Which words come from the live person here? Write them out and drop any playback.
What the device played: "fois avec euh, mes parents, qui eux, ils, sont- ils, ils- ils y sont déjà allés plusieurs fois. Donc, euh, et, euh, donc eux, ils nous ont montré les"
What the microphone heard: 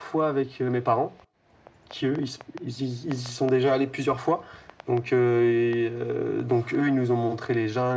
none

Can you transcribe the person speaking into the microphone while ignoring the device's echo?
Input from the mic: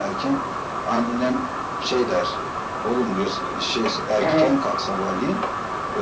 Evet.

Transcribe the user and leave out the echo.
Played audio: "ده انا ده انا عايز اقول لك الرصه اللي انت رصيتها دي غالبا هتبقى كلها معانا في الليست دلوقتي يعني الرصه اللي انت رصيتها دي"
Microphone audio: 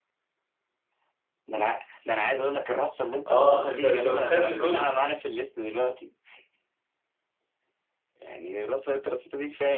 اه انت انت متخيل ان دول

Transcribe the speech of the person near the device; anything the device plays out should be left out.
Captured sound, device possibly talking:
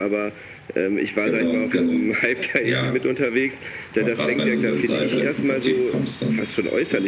none

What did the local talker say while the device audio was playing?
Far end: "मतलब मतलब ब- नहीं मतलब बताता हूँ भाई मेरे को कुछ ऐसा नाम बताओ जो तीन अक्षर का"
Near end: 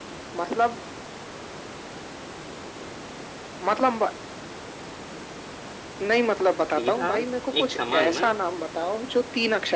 सीधा एक समान ना

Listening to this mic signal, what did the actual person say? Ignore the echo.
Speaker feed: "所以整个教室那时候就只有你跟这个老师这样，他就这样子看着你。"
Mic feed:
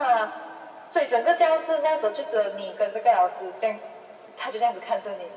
none

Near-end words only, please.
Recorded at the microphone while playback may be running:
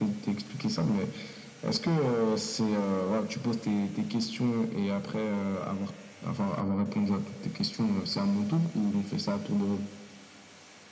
none

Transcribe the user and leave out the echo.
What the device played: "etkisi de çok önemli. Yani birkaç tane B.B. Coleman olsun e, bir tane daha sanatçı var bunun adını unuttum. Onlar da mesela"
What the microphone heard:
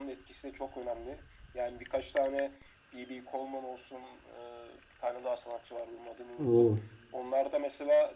Oo,

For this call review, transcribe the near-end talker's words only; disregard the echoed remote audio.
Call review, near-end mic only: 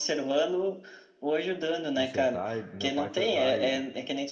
consertar. e Meu pai foi lá e,

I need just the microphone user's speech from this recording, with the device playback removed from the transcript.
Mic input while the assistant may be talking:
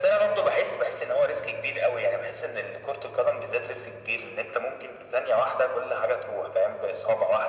none

